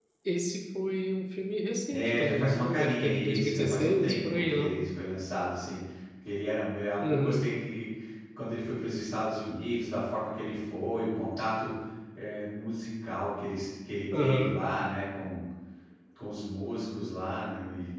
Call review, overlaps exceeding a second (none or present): present